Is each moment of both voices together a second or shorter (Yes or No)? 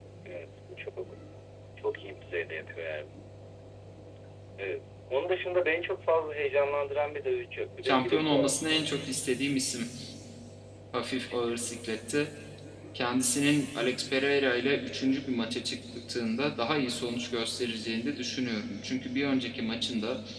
No